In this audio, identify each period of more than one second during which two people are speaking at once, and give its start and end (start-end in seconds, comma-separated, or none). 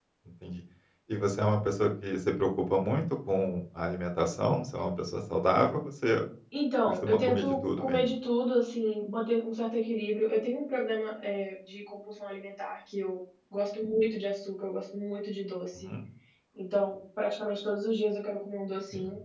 6.9-8.1